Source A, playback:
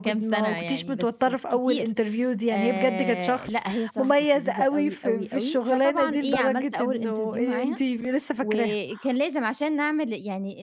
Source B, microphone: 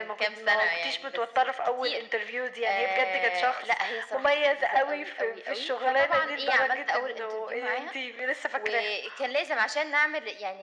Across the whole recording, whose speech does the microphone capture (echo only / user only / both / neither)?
echo only